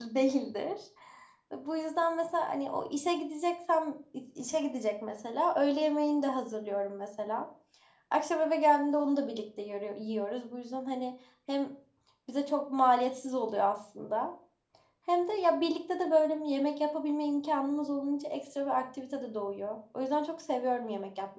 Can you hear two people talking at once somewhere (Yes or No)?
No